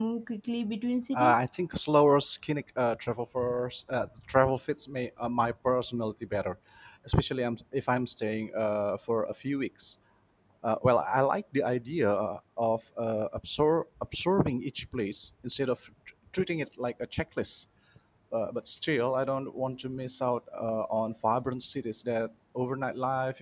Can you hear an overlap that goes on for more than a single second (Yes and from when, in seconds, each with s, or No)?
No